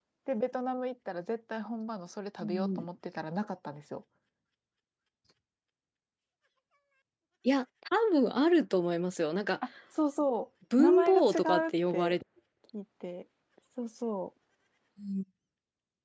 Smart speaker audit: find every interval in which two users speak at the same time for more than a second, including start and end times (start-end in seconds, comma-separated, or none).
10.8-12.2